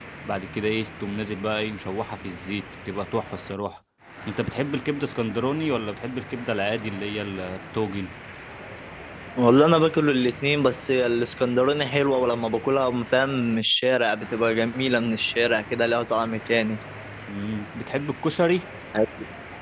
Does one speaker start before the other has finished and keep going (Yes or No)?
No